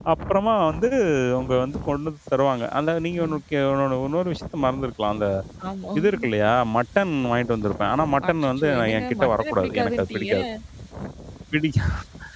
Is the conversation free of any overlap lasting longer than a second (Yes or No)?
No